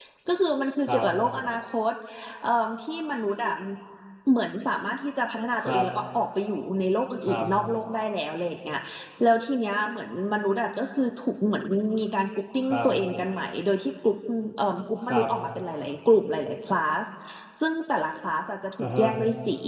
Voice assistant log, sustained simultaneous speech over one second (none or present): none